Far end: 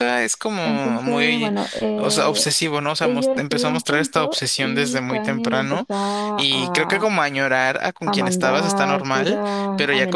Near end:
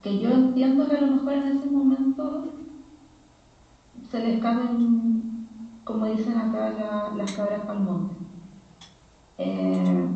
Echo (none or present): none